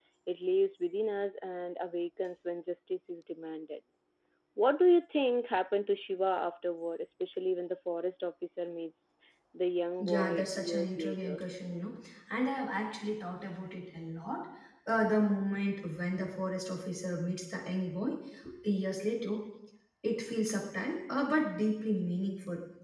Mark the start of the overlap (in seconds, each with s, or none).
10.0 s